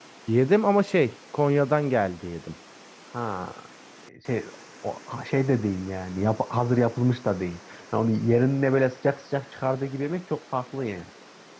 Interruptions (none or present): none